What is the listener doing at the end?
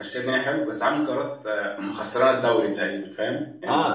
taking over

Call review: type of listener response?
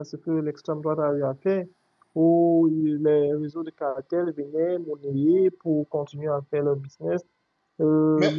listening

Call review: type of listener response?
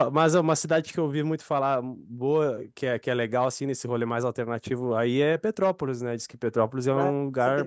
taking over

